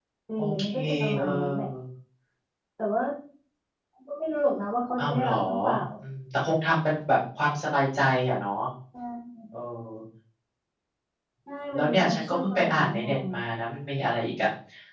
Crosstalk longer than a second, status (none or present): present